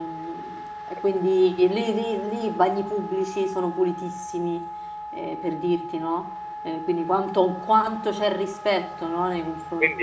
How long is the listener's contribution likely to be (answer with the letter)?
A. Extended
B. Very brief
A